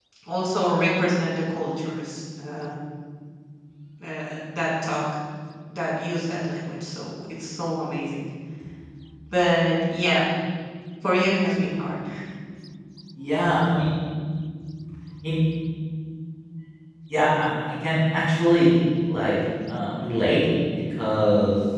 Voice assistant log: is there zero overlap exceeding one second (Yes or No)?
Yes